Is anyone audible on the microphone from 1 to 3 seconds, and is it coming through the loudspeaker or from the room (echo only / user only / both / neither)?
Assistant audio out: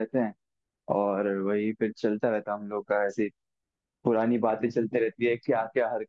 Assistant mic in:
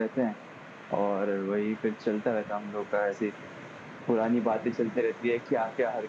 echo only